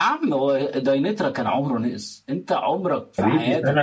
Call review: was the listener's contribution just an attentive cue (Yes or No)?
No